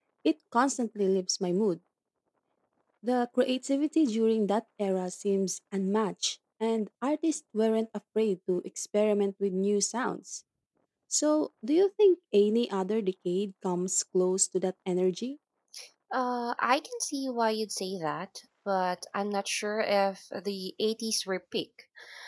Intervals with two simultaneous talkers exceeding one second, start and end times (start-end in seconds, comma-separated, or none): none